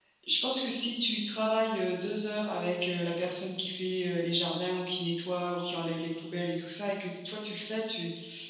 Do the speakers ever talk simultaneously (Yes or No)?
No